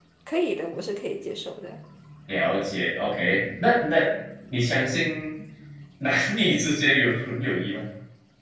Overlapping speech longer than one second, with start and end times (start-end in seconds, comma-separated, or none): none